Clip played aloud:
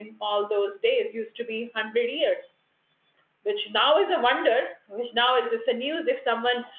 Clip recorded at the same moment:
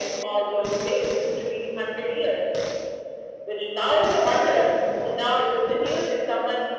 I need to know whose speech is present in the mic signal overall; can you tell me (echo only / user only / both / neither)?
echo only